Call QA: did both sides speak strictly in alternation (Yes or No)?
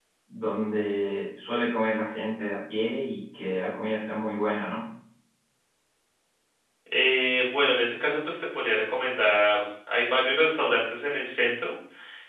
Yes